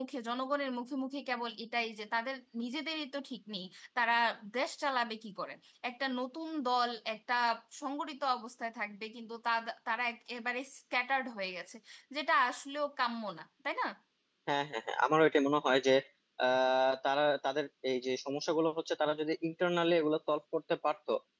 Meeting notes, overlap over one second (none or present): none